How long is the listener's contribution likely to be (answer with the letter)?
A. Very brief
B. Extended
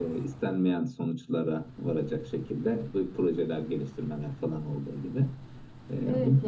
B